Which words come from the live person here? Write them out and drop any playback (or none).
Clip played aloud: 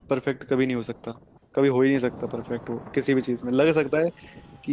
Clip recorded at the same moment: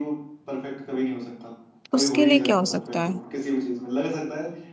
उसके लिए क्या हो सकता है